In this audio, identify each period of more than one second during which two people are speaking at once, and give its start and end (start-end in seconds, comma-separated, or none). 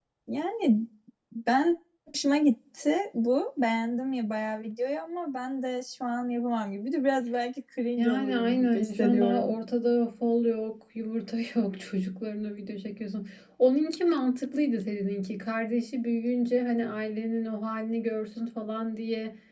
8.0-9.5